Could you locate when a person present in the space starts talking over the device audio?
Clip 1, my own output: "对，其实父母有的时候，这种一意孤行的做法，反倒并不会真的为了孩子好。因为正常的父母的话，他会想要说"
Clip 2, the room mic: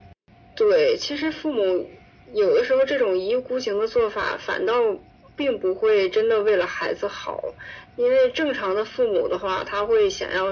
none

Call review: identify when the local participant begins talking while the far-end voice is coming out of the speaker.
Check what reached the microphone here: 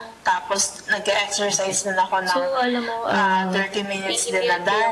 1.5 s

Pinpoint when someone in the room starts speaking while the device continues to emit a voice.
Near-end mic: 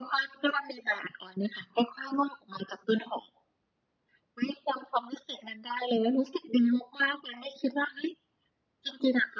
none

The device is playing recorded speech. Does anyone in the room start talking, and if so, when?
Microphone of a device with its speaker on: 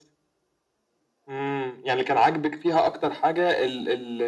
none

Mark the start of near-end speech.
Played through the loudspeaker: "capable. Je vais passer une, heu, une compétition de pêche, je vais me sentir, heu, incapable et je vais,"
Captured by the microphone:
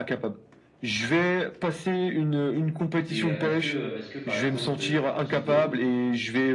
3.1 s

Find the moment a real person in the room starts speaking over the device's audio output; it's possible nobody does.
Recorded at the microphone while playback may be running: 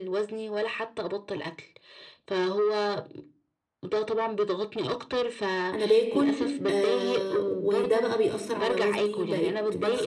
5.7 s

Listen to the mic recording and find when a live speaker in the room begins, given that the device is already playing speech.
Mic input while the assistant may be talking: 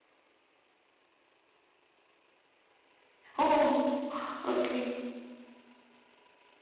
3.4 s

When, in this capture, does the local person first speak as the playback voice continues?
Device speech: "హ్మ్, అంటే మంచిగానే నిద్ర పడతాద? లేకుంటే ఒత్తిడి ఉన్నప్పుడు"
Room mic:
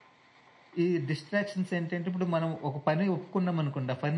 0.8 s

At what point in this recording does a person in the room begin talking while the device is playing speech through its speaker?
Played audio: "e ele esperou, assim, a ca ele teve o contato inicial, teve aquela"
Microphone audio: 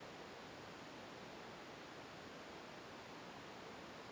none

